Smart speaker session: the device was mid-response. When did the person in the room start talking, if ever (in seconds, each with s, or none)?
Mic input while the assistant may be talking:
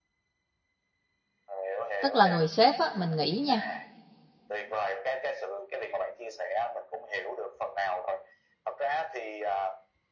2.0 s